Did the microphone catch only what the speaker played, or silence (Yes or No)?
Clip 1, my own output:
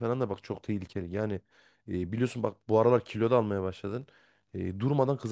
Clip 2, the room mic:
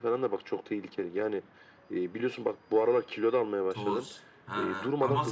No